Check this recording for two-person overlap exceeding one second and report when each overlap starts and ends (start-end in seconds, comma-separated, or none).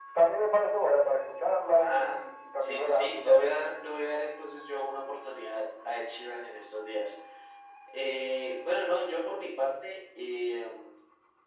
1.6-3.5